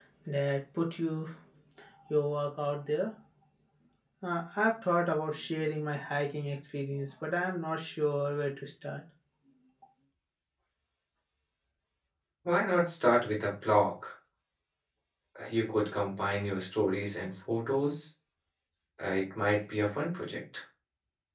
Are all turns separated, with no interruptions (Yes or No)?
Yes